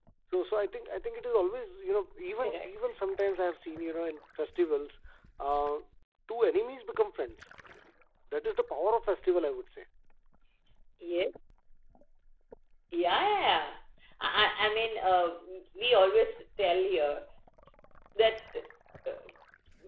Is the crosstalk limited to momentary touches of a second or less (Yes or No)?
Yes